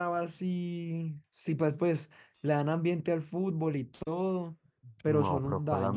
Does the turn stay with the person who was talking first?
No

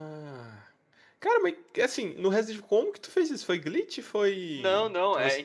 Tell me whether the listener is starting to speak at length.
Yes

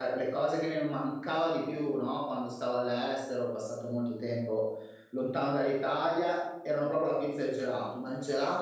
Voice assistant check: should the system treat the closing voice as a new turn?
No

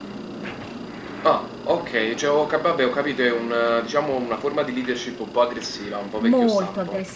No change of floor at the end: No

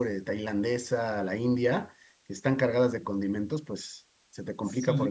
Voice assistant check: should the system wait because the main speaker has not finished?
No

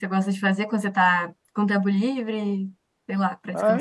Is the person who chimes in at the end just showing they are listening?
No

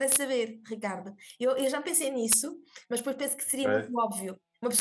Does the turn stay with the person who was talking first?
Yes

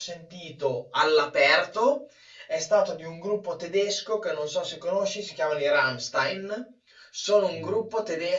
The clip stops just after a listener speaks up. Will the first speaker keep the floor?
Yes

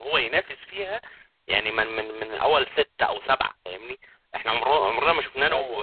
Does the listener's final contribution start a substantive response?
No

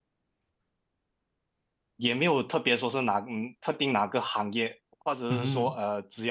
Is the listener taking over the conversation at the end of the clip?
No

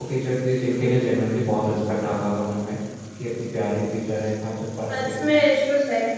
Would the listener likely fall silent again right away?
No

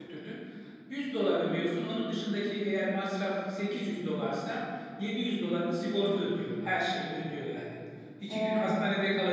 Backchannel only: Yes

